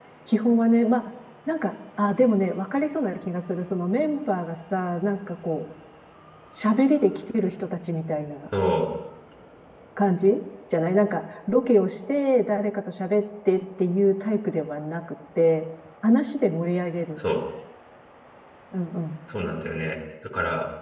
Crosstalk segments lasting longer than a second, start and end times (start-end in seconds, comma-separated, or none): none